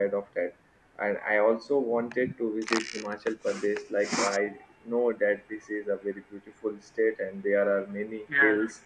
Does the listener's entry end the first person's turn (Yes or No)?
No